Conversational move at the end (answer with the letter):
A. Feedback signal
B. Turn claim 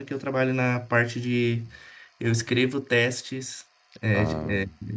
A